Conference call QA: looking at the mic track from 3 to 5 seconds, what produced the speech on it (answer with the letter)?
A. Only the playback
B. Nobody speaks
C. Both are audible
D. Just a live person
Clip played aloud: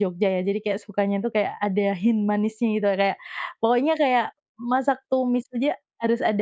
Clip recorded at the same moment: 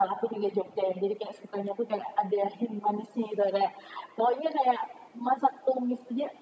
A